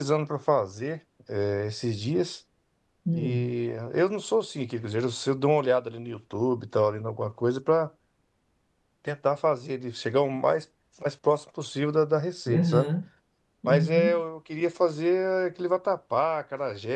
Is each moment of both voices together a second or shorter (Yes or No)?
Yes